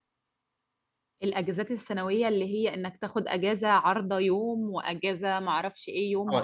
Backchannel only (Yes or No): No